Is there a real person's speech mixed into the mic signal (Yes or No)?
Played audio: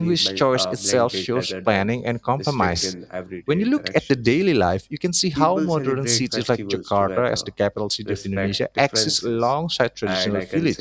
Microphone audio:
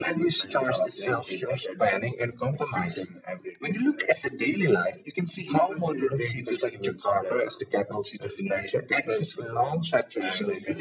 No